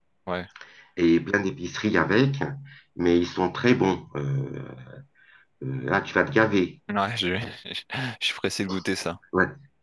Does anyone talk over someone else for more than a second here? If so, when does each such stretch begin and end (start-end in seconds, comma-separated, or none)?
none